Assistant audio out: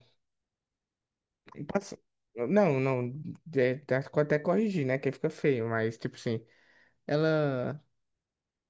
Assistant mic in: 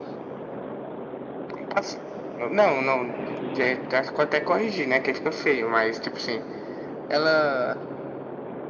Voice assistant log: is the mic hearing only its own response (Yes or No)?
Yes